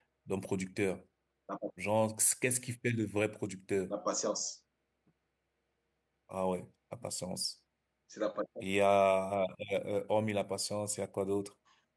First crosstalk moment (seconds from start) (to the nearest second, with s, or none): none